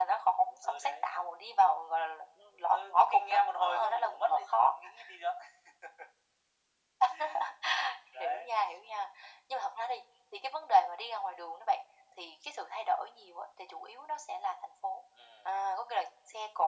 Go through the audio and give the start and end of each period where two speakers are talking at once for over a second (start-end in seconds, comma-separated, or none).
2.7-4.7